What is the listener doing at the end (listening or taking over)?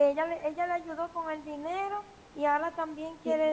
taking over